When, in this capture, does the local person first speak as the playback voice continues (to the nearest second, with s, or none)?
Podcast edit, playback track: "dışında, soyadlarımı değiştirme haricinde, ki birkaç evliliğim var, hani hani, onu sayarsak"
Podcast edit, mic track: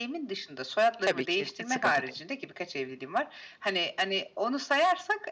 1 s